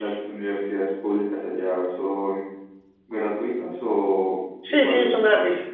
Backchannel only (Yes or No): No